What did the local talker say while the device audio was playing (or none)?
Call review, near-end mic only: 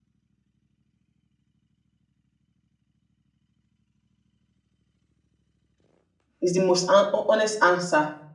is the most un- honest answer.